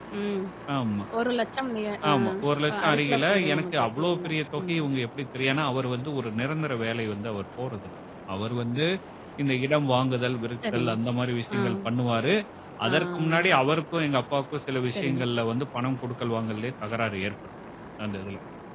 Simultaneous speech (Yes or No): Yes